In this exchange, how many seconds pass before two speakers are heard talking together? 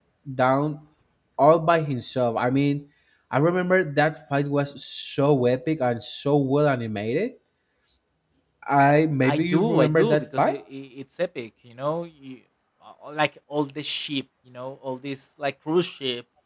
9.2 s

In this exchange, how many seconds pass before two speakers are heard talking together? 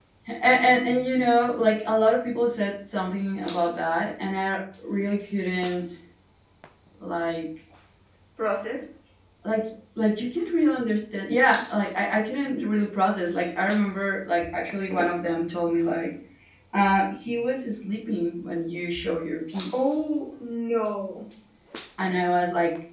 none

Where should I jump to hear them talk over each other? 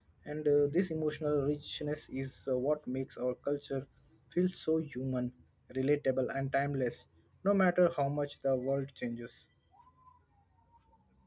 none

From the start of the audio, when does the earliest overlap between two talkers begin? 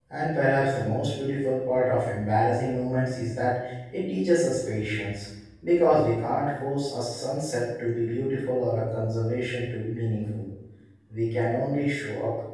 none

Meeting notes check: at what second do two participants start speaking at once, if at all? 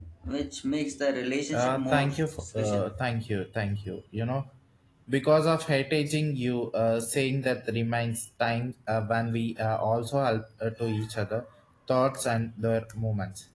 1.5 s

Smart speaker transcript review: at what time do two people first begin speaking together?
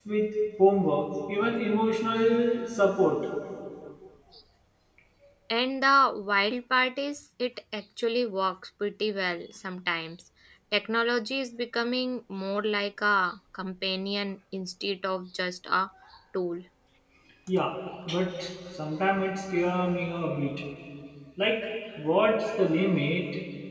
none

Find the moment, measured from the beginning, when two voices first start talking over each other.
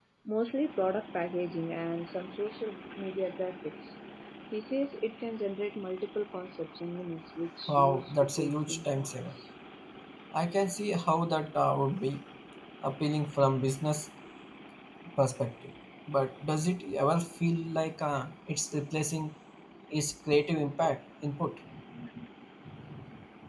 7.7 s

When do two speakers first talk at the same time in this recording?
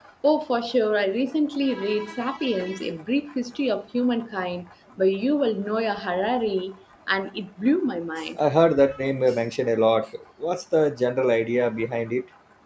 none

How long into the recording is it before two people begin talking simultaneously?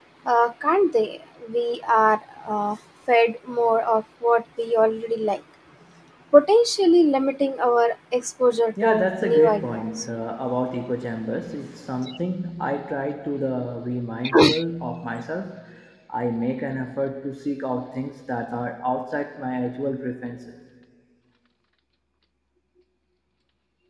8.8 s

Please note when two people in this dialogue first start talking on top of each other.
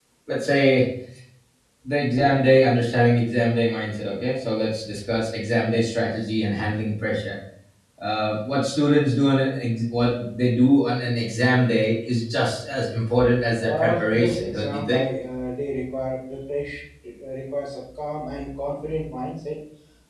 13.6 s

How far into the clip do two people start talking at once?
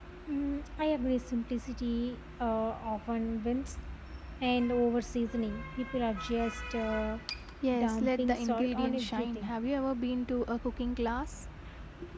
7.8 s

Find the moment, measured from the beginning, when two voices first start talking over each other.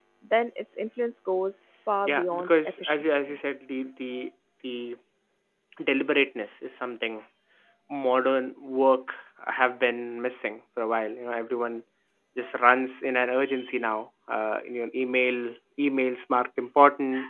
2.0 s

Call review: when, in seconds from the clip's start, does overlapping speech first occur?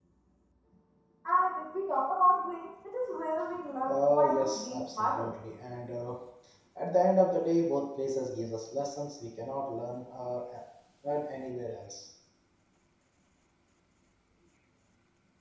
3.9 s

